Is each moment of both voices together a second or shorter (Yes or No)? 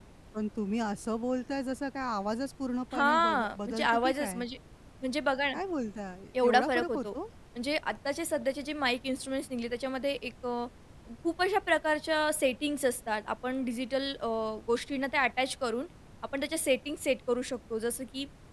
No